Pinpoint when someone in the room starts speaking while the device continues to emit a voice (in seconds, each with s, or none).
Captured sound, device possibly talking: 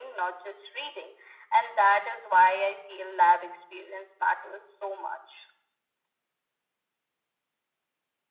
none